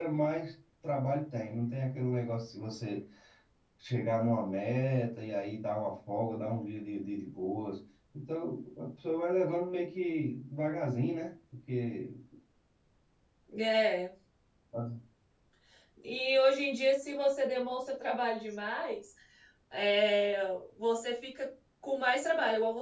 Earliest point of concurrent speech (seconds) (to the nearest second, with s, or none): none